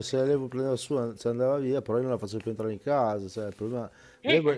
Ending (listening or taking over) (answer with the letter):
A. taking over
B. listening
B